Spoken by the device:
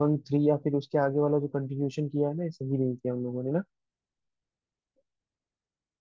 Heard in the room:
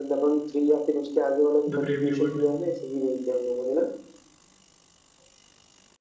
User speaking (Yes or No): Yes